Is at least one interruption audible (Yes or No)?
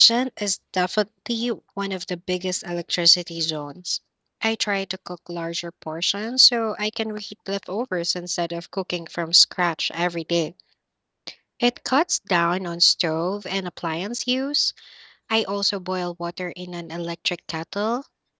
No